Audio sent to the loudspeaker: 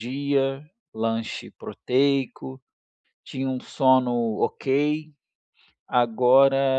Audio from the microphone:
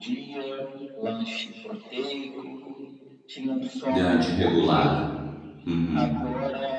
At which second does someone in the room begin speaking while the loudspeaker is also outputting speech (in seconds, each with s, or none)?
3.9 s